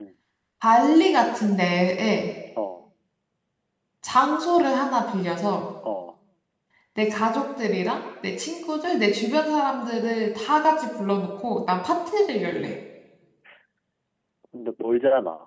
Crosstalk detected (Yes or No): No